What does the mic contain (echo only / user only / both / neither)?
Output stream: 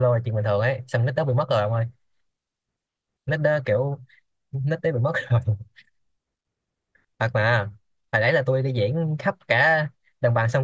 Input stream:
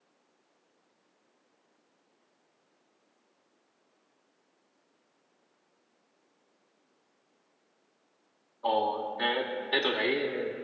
user only